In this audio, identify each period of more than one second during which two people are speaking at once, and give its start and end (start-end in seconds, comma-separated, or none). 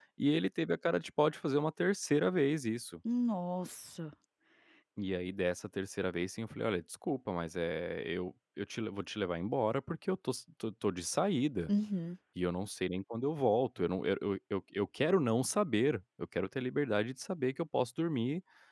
none